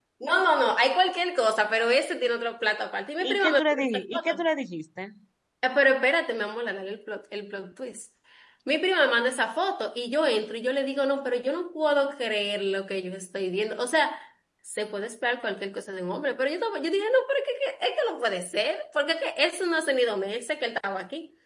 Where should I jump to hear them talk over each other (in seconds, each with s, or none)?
3.2 s